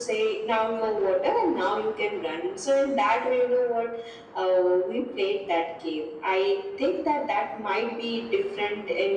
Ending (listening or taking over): listening